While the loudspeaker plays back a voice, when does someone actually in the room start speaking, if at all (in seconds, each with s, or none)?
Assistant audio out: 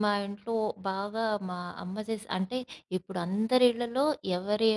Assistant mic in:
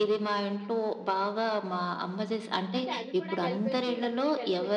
2.8 s